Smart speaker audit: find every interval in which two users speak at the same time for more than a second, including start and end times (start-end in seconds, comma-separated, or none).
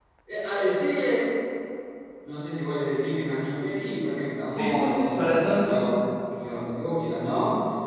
4.6-5.9